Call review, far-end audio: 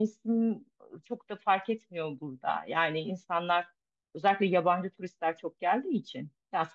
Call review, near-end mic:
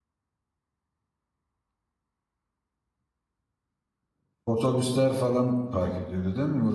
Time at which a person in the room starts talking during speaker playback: 4.5 s

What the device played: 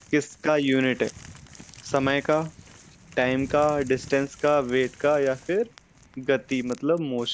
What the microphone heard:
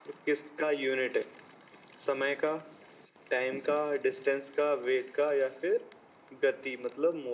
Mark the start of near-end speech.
none

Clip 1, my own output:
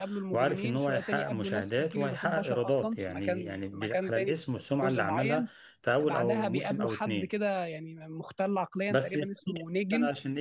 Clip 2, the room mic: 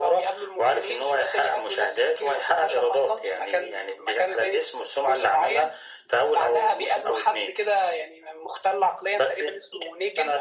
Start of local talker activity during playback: none

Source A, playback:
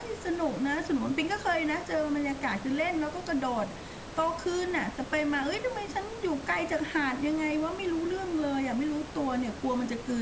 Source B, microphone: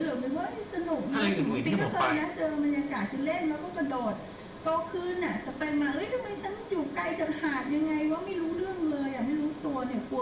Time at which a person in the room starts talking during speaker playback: 1.1 s

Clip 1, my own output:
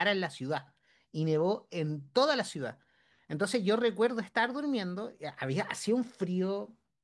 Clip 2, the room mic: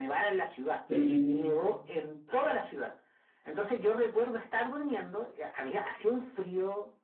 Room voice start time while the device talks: 0.9 s

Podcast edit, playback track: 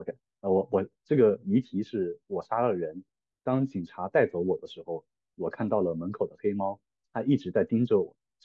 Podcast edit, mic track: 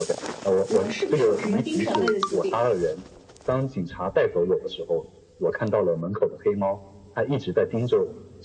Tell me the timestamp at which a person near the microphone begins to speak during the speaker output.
0.6 s

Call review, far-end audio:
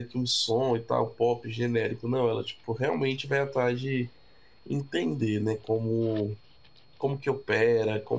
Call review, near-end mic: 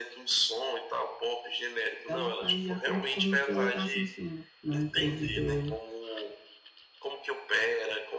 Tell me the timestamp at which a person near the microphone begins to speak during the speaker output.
2.1 s

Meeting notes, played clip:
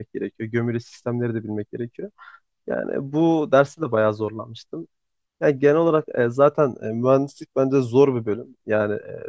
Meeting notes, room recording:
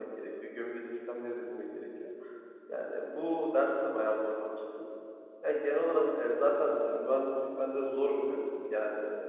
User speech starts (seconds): none

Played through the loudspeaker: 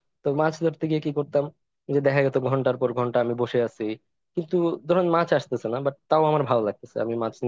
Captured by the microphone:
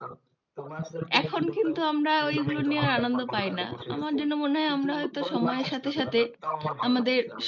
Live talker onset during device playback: 1.2 s

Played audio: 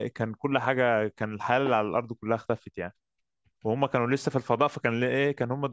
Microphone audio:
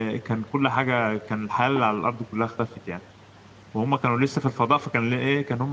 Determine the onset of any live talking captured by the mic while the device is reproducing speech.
none

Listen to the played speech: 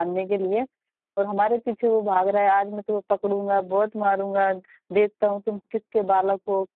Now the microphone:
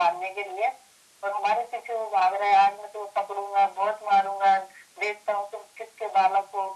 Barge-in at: none

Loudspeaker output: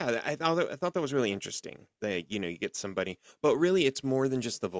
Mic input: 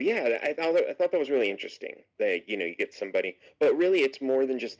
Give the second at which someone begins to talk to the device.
none

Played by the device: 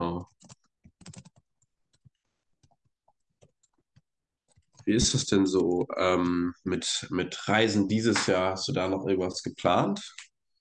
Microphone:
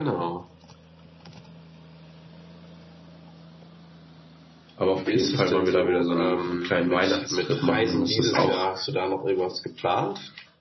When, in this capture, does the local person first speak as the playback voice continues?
4.8 s

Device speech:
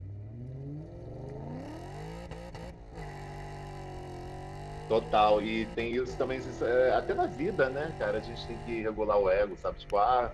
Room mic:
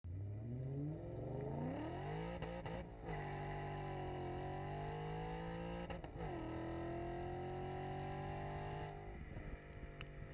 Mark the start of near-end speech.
none

